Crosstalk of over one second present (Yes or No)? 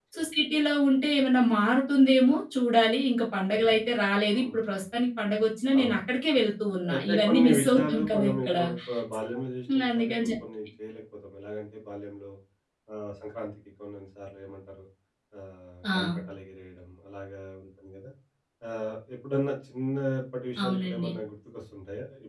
Yes